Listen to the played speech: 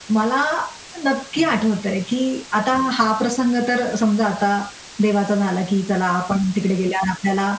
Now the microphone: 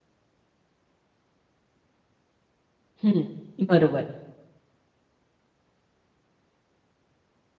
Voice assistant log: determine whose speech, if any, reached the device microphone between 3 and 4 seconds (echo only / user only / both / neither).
user only